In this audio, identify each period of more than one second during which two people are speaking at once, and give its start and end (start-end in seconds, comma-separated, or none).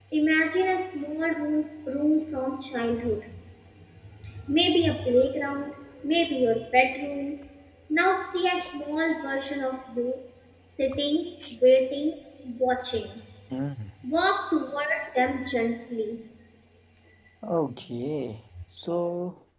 none